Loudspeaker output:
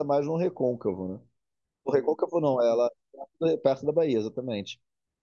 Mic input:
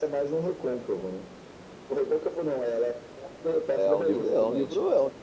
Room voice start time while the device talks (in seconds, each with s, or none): 3.7 s